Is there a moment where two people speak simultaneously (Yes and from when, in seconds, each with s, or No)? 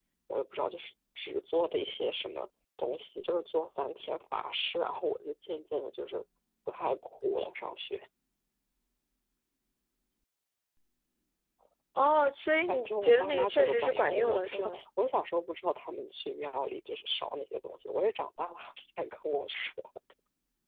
Yes, from 12.7 s